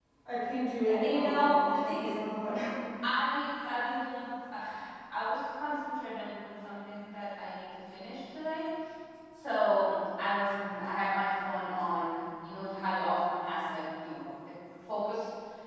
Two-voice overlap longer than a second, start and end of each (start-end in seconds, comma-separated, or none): 0.9-2.1